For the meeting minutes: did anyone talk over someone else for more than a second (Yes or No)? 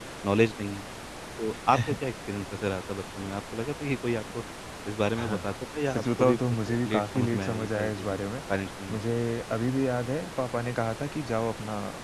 Yes